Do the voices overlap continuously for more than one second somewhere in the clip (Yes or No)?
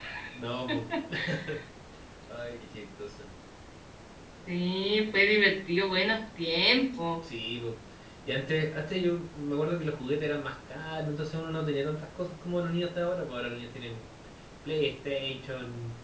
No